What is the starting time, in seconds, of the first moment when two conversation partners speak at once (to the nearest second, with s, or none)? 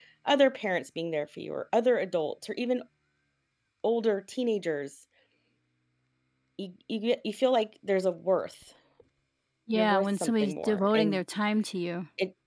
10 s